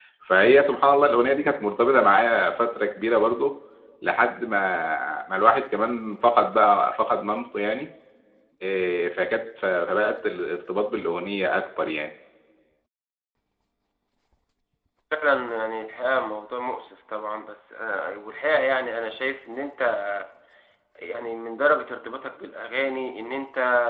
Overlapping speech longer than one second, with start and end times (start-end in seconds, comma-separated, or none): none